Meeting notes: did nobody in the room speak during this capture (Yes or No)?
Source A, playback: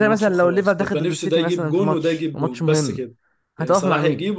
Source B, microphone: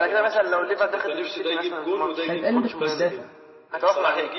No